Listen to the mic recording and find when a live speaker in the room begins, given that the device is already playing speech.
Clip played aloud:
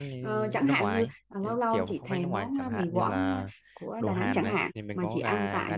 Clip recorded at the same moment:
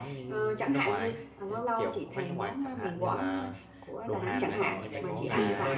5 s

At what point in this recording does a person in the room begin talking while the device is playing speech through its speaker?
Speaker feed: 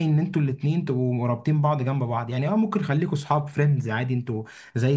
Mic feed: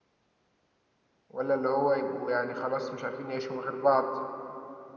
1 s

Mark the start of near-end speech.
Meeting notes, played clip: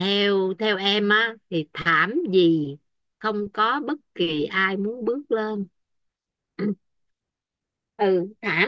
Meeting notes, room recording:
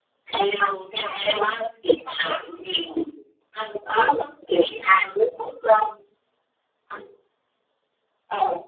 none

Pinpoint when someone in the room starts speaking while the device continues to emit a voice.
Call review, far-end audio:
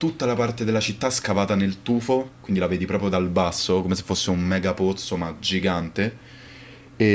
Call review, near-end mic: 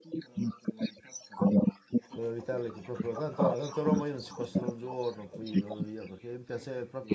2 s

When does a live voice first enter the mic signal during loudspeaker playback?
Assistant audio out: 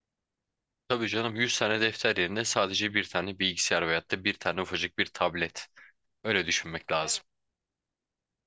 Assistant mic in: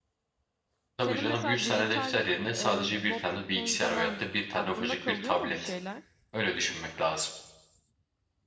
1 s

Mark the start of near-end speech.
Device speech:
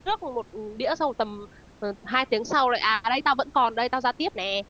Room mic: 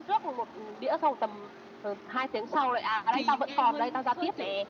3 s

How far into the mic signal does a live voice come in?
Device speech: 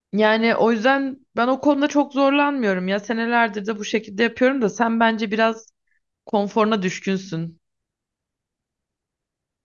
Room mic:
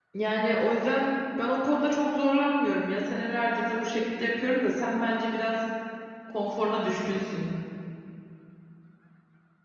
none

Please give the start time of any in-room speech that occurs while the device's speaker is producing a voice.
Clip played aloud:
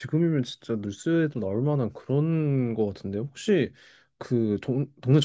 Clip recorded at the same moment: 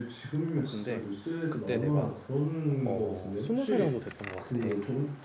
1 s

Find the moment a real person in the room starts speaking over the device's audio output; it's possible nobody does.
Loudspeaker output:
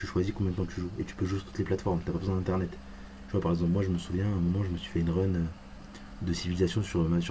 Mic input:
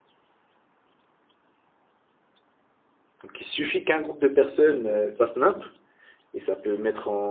3 s

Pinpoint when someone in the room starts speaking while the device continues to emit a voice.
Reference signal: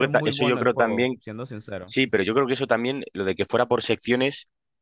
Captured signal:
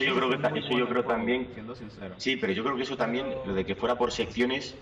3 s

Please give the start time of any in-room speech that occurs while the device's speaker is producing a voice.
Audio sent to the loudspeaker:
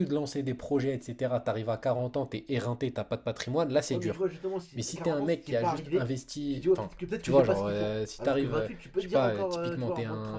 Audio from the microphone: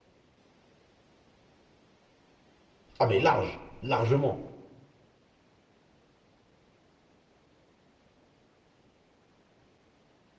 3 s

